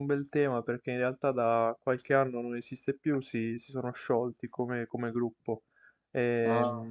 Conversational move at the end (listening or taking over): listening